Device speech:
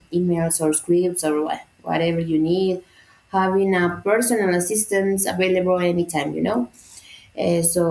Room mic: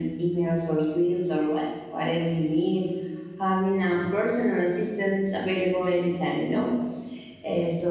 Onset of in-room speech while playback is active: none

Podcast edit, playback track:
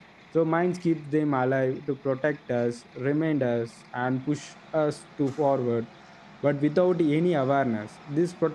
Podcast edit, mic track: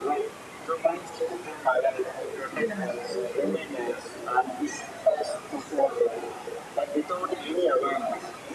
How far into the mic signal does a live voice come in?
2.5 s

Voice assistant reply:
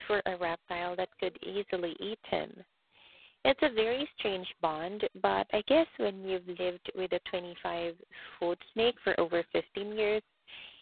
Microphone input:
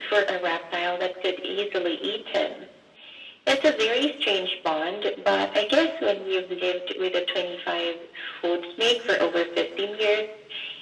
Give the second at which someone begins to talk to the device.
none

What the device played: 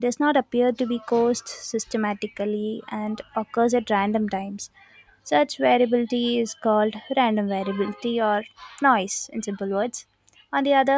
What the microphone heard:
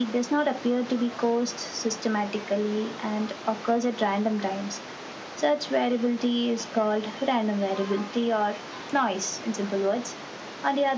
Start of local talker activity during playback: none

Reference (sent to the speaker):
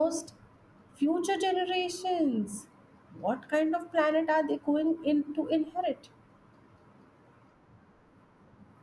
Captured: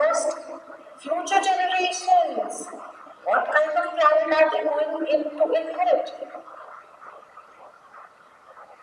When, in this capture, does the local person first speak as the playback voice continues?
none

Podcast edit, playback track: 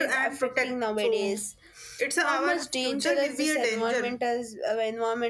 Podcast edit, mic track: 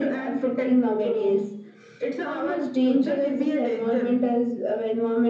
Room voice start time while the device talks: none

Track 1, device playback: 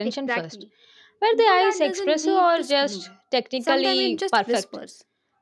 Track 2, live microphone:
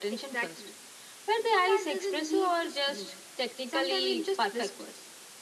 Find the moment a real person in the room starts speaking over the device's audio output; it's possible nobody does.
none

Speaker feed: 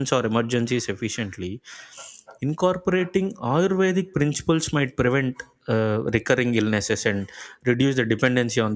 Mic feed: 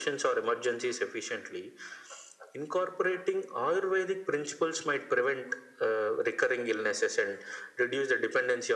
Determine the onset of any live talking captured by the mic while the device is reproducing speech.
none

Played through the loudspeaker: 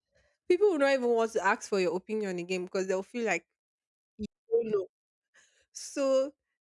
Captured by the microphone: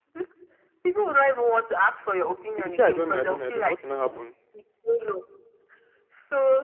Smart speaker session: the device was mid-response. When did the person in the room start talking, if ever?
2.6 s

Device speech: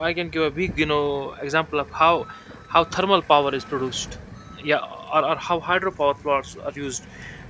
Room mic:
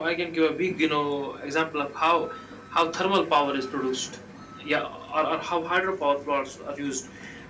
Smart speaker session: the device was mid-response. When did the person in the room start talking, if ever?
none

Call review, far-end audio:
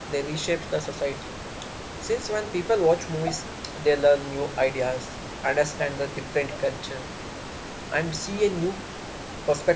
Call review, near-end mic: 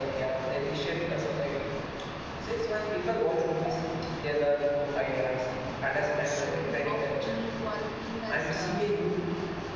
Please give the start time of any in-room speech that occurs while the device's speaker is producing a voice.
5.9 s

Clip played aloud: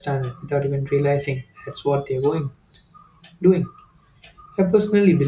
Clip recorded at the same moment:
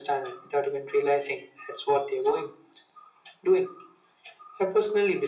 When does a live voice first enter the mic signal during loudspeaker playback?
none

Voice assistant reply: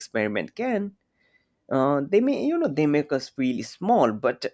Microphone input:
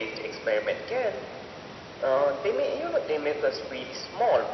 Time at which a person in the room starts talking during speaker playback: none

